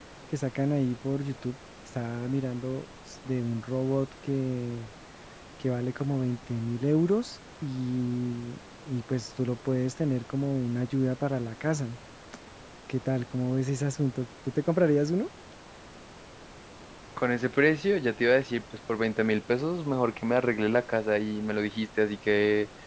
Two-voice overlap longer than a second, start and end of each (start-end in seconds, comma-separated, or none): none